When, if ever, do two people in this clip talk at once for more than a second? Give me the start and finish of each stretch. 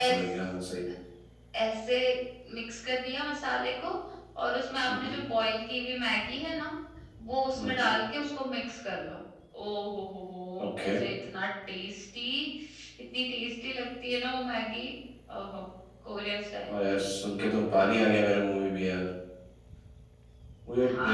none

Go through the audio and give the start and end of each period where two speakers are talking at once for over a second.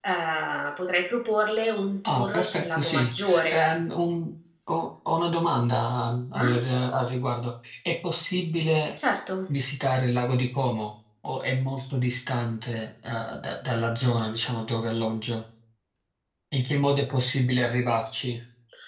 2.0-3.6

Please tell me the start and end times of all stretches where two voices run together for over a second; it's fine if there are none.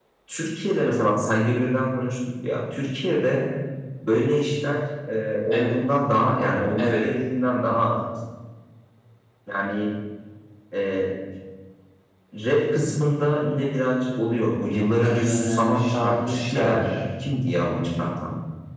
15.0-16.8

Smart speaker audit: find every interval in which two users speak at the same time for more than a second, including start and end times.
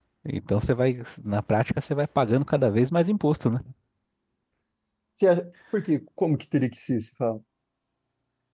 none

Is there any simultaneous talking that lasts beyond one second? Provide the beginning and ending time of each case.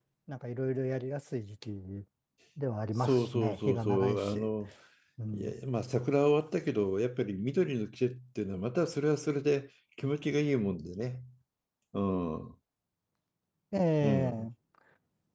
3.0-4.5

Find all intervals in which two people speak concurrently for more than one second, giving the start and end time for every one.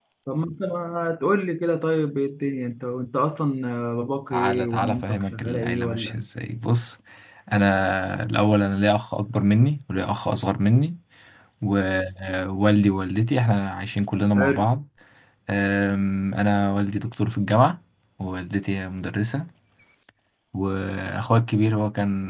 4.3-6.2

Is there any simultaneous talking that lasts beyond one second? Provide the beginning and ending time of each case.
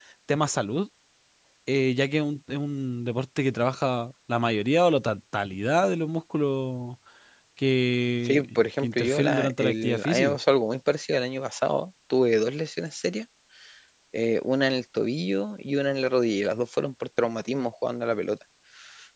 8.2-10.4

